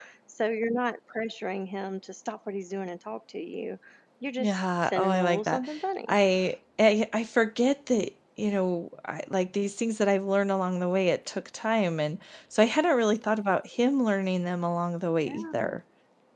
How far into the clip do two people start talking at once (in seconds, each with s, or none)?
4.4 s